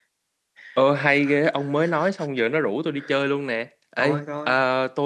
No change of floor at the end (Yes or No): Yes